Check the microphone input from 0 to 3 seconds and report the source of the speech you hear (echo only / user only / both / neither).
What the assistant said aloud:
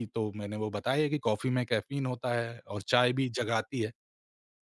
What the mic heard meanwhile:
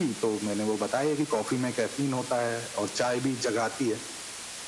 echo only